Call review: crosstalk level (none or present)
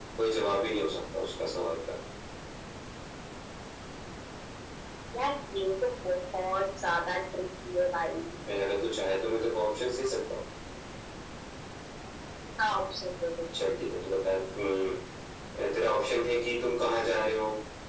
none